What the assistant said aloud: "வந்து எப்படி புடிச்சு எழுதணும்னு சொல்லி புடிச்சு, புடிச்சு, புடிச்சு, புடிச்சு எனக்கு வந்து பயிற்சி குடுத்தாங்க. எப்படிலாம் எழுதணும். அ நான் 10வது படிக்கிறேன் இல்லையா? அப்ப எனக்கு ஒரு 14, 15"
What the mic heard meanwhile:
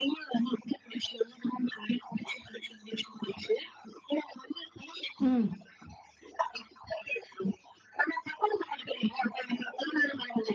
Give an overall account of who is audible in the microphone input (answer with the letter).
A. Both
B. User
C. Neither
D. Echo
A